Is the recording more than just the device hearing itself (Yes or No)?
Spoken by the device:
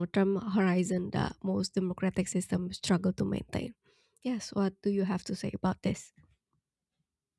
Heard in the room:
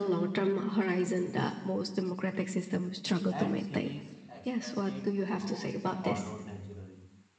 Yes